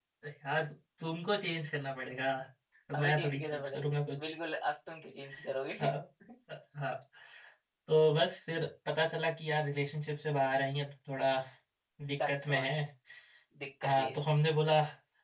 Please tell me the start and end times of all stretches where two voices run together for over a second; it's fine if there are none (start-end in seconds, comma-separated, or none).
2.9-4.3